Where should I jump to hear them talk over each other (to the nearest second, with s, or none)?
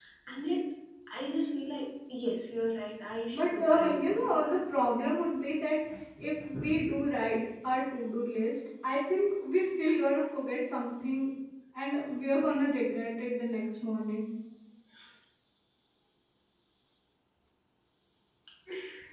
3 s